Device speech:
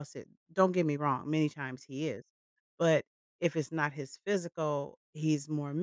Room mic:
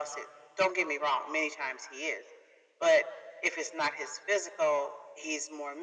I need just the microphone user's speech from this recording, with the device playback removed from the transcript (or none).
none